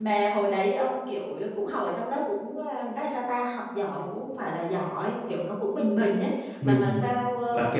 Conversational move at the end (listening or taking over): taking over